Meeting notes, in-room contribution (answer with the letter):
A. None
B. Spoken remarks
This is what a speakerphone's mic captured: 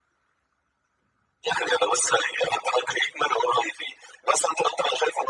A